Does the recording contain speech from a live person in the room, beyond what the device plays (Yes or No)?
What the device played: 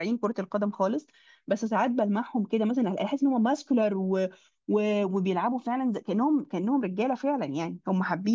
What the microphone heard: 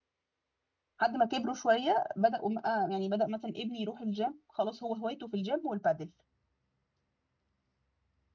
Yes